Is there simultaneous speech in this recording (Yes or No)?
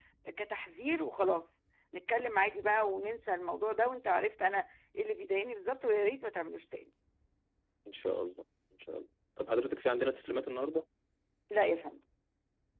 No